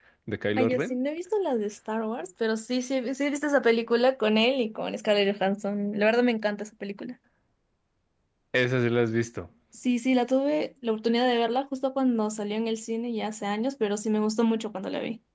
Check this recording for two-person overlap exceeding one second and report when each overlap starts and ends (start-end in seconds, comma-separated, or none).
none